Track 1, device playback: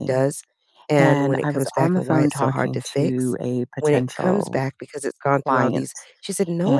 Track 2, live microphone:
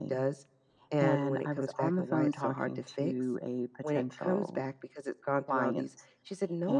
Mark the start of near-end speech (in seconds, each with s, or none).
none